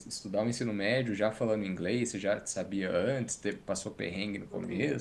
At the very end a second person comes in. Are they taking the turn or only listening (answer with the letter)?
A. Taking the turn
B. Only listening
A